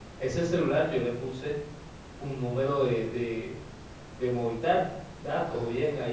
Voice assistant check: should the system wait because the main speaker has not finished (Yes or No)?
Yes